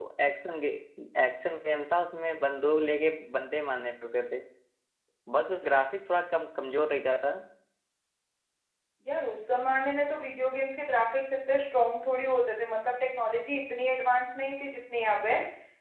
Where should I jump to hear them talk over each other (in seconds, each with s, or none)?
none